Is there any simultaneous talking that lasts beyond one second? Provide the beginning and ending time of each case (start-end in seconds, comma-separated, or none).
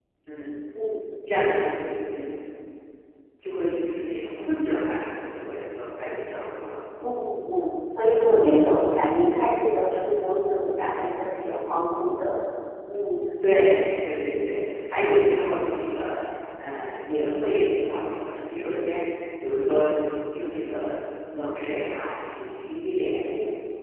none